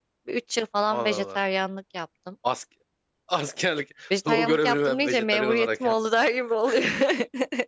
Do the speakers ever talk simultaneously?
Yes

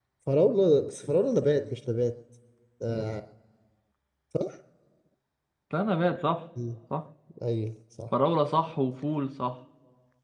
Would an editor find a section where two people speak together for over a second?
No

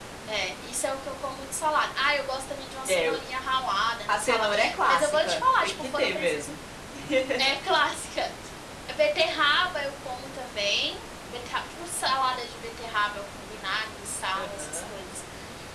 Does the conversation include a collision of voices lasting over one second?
Yes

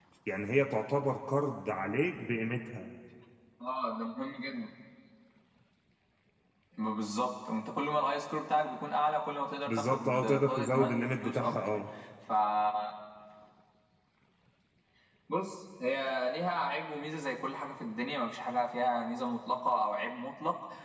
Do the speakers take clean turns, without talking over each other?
No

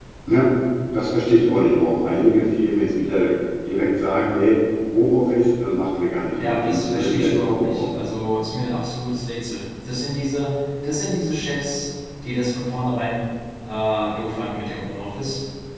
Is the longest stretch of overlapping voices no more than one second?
No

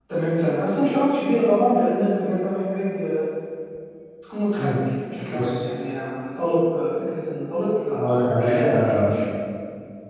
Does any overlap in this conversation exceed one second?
Yes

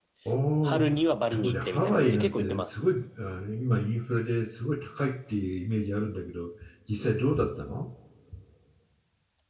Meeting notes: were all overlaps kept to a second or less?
No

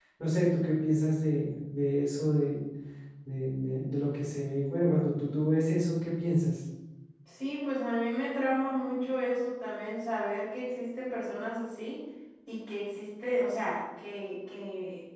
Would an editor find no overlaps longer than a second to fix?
Yes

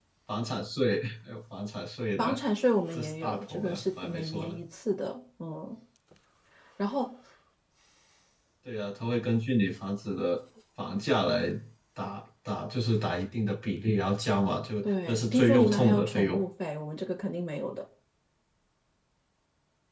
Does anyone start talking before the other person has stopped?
Yes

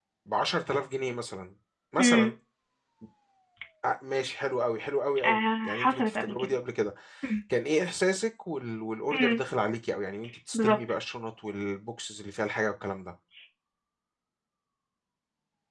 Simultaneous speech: Yes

